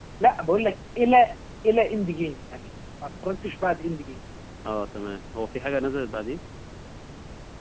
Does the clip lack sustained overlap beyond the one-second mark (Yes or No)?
Yes